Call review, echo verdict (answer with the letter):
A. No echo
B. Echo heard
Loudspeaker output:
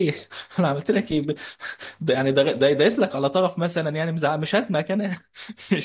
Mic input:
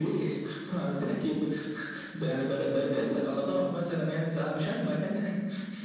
B